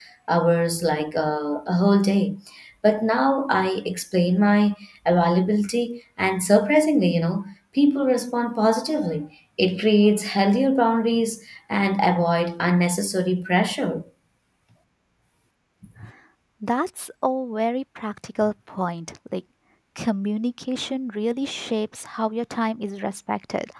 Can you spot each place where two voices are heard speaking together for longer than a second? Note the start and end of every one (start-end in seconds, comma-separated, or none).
none